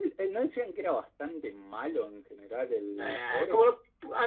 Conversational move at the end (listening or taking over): taking over